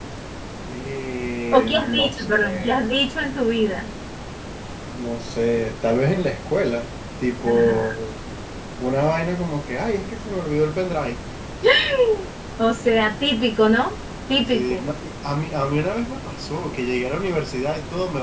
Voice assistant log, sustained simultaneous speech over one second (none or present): present